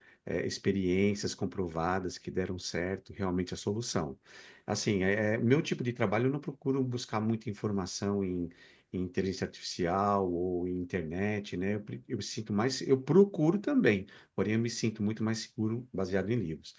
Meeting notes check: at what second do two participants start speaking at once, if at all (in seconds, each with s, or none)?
none